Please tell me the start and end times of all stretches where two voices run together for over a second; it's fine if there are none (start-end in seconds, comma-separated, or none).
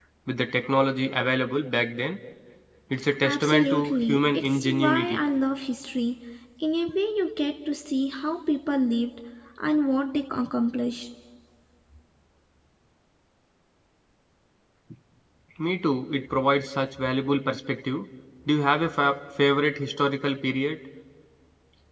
3.2-5.2